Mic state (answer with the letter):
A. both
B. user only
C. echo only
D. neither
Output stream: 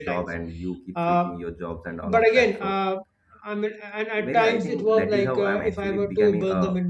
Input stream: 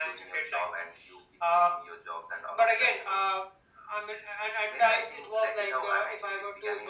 C